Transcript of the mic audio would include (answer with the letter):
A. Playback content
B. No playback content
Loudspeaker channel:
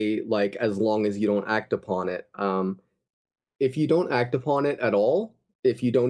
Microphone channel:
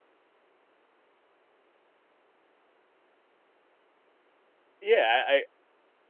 B